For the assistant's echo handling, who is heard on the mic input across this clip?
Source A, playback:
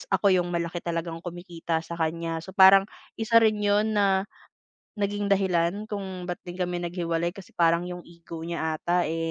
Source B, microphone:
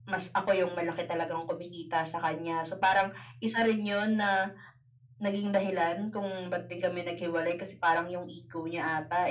echo only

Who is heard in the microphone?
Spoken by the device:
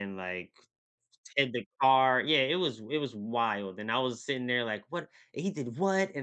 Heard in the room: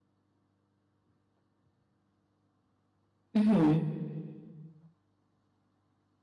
user only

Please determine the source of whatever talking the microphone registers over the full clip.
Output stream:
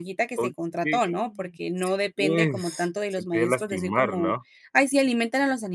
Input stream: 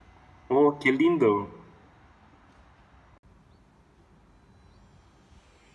user only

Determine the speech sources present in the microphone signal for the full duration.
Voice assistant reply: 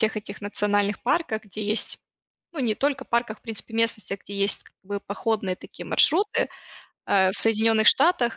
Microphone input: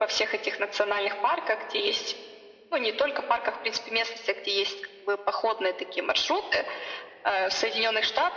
echo only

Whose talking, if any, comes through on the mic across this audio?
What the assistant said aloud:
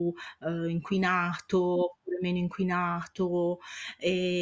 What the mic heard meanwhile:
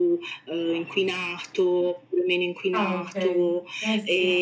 both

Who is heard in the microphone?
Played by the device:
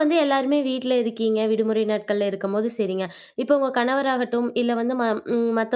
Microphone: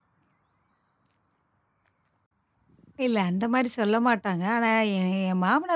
user only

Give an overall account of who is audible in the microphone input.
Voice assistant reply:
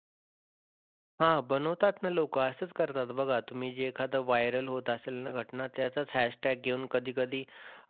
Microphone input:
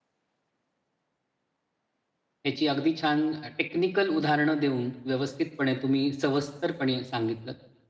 user only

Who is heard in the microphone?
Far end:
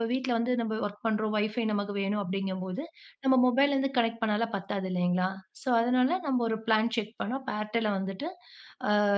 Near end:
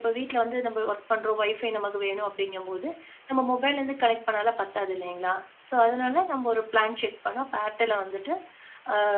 echo only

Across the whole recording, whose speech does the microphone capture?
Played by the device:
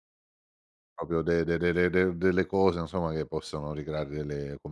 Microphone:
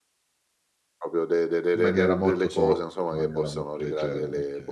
both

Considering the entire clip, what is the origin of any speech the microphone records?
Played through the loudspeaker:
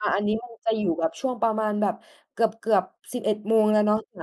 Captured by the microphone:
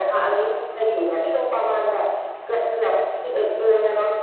echo only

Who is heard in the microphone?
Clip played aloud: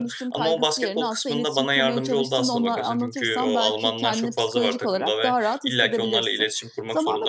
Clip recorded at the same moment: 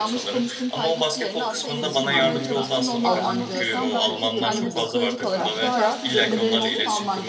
both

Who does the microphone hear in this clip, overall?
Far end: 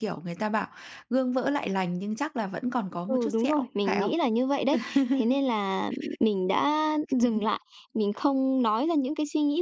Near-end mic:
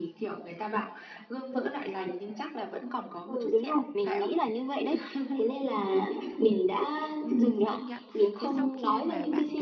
both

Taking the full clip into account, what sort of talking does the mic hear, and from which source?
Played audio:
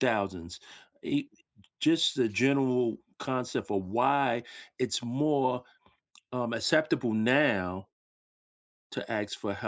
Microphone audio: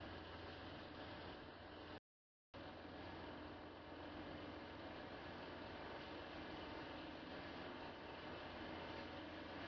neither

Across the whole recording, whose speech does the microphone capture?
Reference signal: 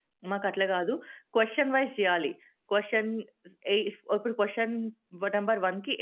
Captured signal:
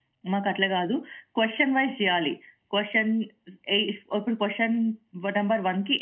echo only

